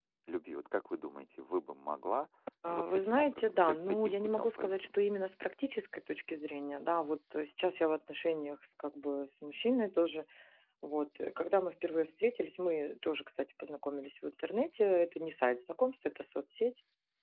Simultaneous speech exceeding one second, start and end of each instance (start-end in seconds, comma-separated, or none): 2.7-4.9